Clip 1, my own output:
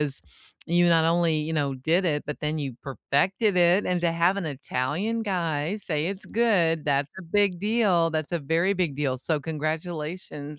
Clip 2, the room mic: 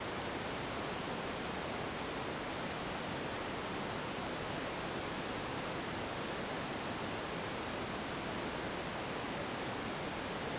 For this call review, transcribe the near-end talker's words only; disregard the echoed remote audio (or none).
none